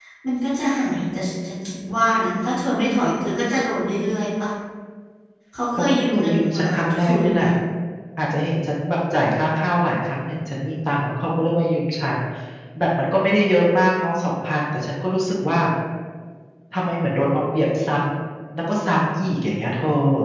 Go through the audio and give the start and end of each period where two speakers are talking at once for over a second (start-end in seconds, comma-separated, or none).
5.7-7.4